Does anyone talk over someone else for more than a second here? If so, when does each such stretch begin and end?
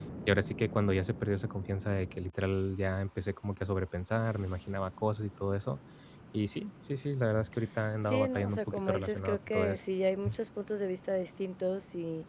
8.0-9.8

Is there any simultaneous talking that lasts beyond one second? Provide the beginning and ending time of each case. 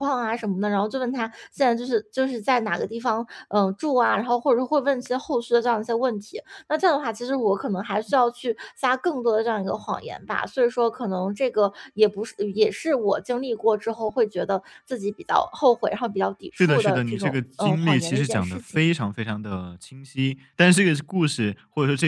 16.6-18.8

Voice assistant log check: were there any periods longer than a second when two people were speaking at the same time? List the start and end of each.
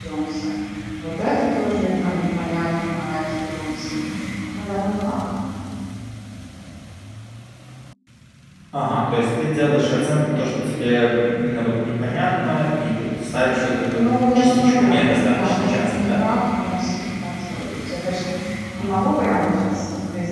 13.9-16.2

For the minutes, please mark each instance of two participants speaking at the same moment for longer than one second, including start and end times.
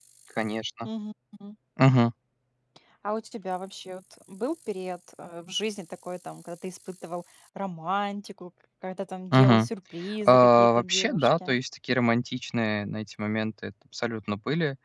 10.2-11.6

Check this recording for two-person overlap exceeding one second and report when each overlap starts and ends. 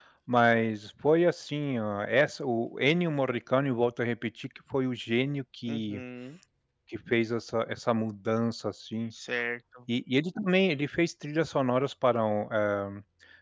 none

